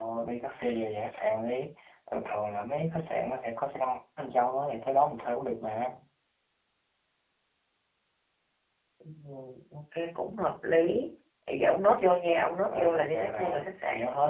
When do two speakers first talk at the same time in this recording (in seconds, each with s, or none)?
12.7 s